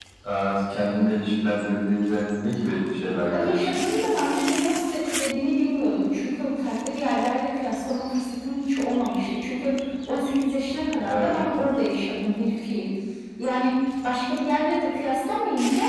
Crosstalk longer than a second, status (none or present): none